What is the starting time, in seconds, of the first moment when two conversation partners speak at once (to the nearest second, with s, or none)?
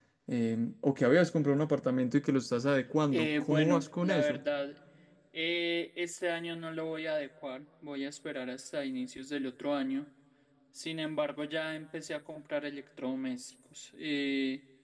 3 s